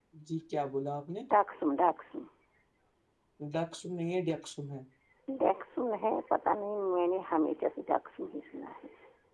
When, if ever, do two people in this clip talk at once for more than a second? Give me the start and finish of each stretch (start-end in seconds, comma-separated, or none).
none